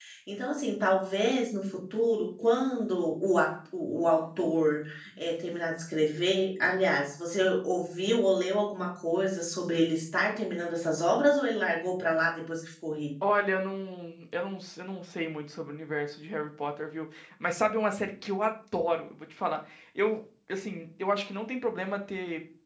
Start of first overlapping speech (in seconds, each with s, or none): none